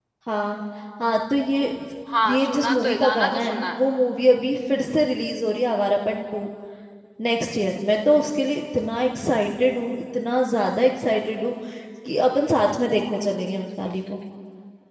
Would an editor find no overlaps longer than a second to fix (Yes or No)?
No